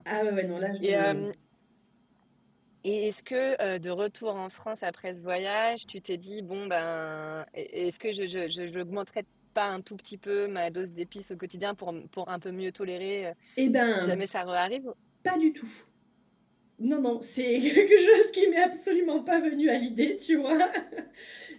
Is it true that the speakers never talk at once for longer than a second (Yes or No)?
Yes